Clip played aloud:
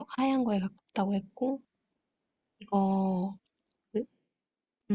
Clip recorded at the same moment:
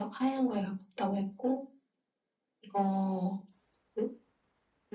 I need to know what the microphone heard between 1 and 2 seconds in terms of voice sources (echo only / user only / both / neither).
echo only